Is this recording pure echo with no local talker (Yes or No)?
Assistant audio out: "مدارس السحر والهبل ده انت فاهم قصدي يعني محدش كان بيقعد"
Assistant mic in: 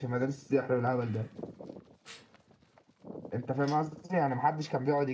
Yes